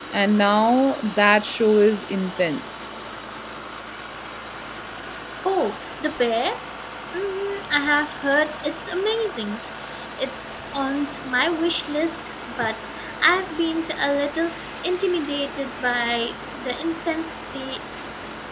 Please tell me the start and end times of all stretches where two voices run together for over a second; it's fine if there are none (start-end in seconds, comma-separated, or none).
none